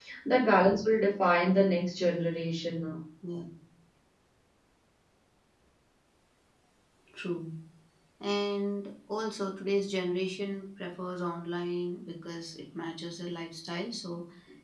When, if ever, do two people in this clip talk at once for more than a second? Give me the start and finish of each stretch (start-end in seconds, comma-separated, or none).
none